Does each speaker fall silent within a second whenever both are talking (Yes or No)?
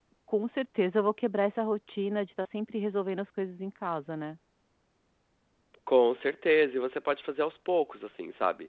Yes